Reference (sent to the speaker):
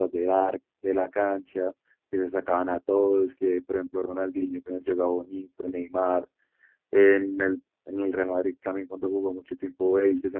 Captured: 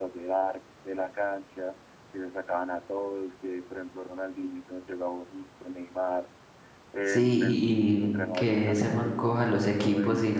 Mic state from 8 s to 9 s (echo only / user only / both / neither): both